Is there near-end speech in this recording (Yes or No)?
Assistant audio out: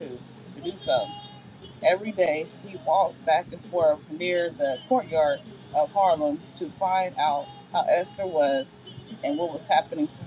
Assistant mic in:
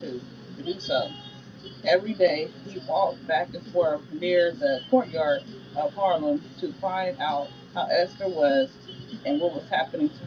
No